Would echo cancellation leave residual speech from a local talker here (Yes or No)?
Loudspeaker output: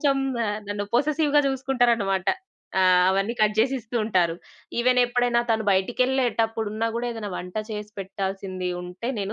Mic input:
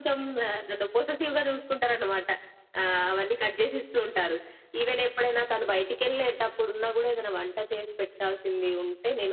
No